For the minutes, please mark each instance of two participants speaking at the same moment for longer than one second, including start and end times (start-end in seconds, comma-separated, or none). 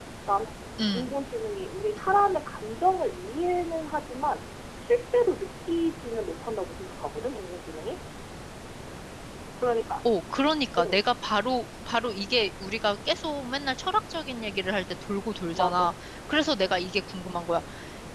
none